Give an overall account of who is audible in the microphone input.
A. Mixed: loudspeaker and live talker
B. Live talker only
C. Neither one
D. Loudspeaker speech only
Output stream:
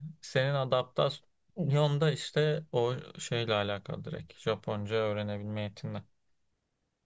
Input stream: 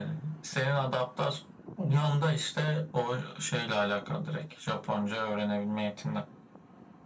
D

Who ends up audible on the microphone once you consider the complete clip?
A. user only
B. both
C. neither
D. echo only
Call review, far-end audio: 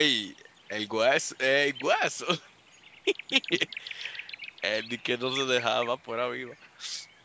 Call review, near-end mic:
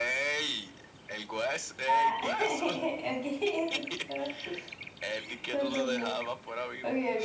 B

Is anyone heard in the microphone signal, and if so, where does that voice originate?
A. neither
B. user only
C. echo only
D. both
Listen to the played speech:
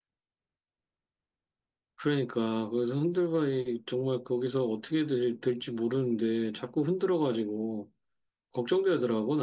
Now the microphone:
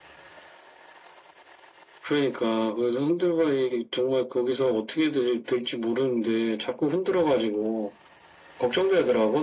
C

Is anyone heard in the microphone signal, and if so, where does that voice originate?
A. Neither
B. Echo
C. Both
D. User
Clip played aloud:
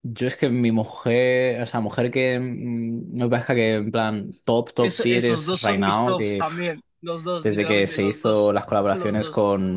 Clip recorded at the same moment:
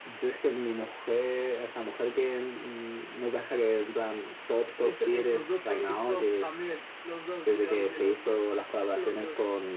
B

